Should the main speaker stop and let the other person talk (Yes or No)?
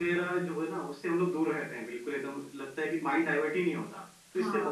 No